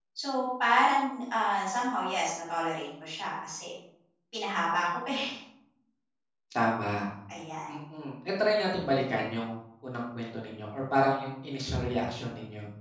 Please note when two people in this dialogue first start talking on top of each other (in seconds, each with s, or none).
none